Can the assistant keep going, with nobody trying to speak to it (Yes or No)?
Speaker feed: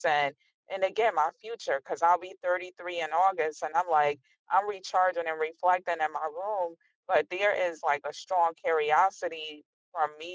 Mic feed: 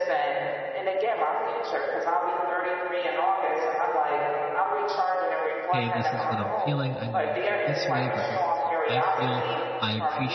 No